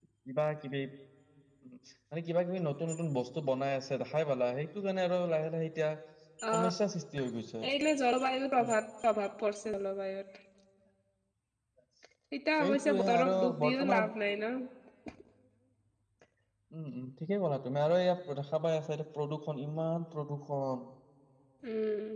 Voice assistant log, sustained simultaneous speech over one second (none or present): present